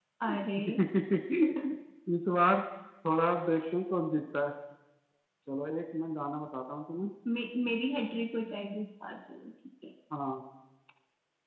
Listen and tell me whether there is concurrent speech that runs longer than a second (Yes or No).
No